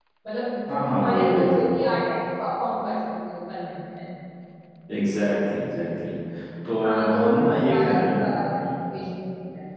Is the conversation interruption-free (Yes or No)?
No